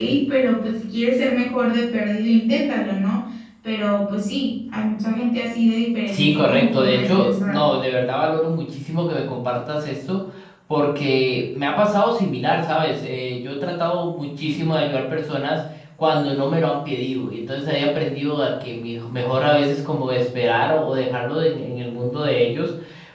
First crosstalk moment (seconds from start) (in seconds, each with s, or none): 6.1 s